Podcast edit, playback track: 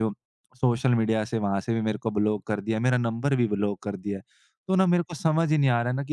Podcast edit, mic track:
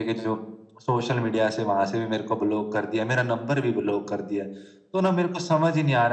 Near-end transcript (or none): none